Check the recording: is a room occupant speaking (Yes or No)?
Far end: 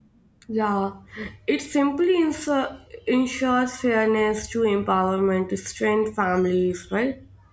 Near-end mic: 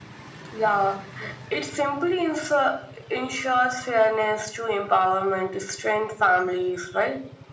No